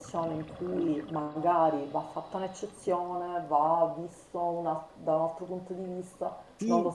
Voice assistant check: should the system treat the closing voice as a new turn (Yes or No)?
Yes